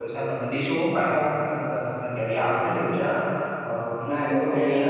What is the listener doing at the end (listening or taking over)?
taking over